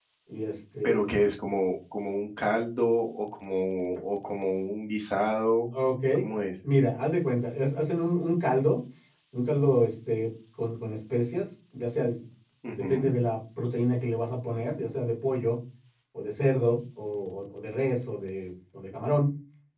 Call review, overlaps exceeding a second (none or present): none